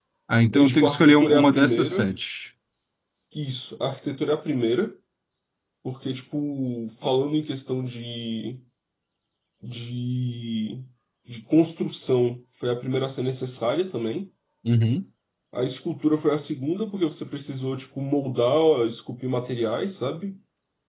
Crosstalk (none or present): present